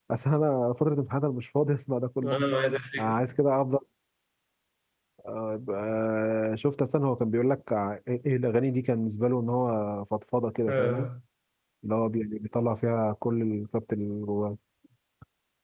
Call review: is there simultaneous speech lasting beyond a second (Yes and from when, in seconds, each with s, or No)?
No